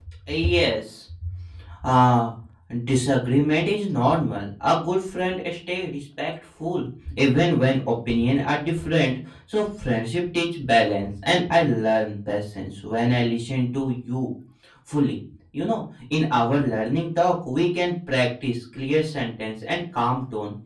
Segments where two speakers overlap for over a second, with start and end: none

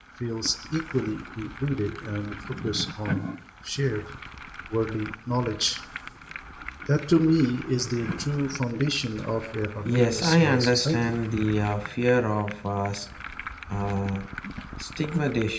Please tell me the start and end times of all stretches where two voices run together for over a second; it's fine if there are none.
9.8-11.1

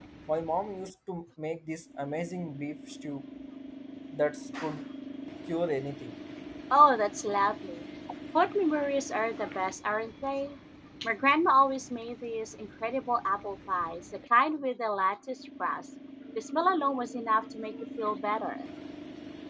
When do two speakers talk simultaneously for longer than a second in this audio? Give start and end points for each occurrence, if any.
none

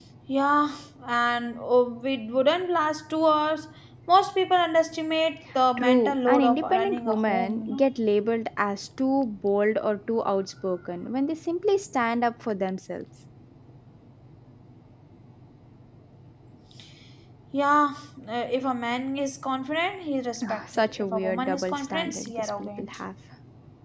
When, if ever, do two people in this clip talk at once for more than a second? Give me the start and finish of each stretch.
5.8-7.9, 20.4-22.9

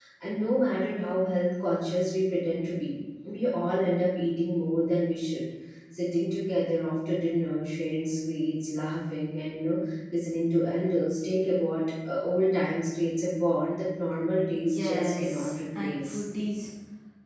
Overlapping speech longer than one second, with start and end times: 14.5-16.2

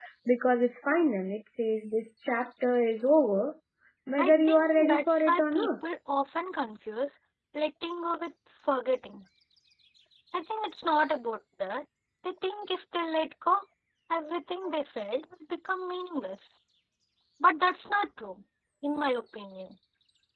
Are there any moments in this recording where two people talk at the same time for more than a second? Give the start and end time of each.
4.2-5.7

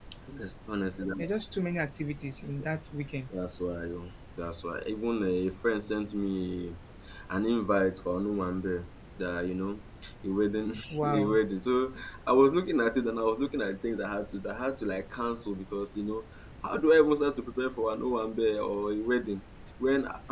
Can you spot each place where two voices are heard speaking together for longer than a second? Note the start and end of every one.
none

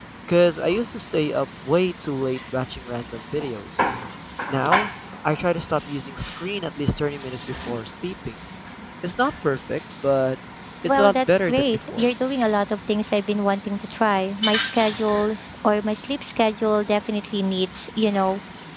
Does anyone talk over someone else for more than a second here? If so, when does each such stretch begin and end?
10.8-12.1

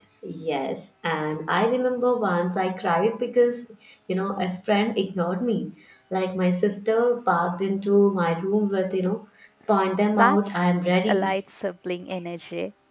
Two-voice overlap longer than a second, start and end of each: none

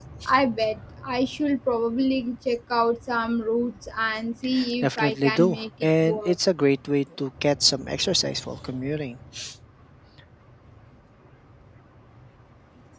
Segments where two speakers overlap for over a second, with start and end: 4.8-6.3

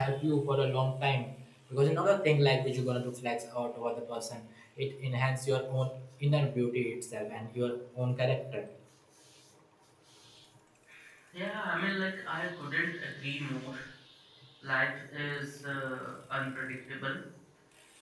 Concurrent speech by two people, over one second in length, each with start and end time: none

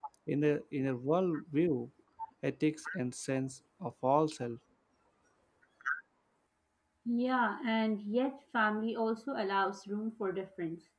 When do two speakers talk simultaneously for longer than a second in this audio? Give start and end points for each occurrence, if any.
none

